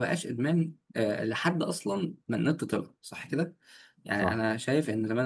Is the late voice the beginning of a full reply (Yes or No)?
No